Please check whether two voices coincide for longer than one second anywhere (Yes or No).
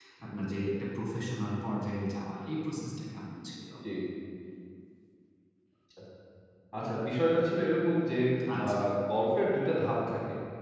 No